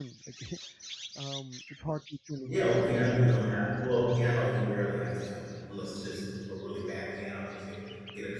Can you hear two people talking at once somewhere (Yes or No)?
No